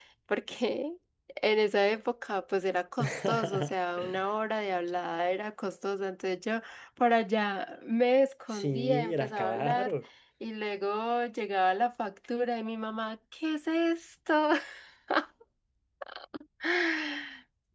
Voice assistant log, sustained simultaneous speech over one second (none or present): present